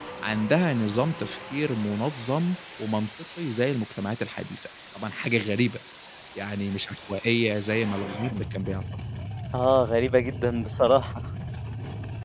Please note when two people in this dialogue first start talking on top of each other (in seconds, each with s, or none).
none